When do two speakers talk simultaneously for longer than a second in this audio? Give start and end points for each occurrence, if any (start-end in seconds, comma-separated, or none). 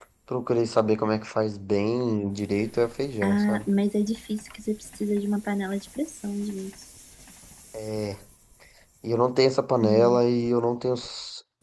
none